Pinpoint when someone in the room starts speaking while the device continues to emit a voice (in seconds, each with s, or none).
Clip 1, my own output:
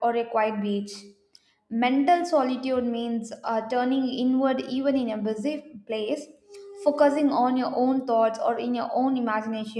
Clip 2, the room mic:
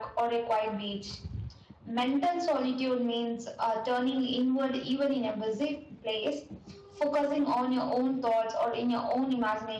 none